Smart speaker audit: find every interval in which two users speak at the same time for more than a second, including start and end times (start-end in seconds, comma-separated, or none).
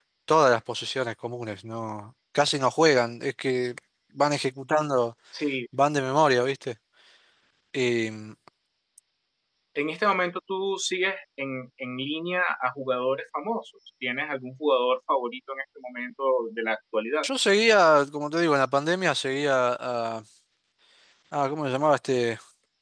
none